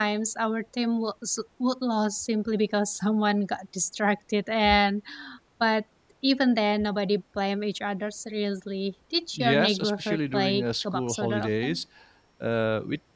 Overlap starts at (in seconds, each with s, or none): 9.4 s